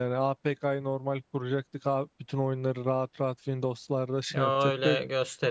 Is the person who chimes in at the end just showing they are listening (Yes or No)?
No